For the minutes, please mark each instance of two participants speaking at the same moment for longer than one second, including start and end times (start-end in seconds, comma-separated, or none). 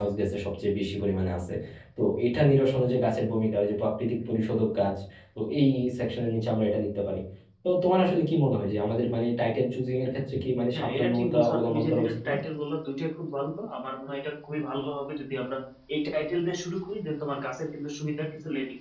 10.7-12.3